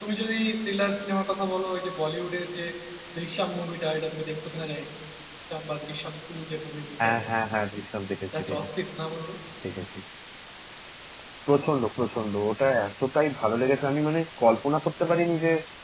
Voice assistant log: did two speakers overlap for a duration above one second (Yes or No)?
No